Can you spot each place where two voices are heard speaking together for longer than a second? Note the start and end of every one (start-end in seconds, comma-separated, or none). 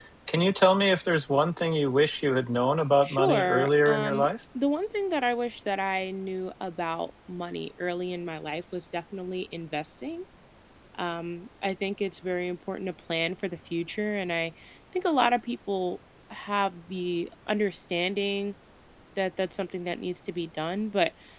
3.0-4.3